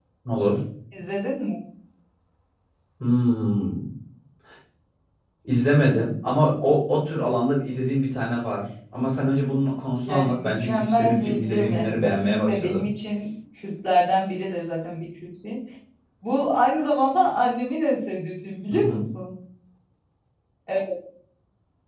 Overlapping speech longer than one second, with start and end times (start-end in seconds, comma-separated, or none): 10.1-12.9